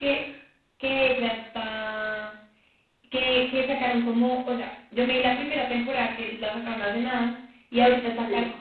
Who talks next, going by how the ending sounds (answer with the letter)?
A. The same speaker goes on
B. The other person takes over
A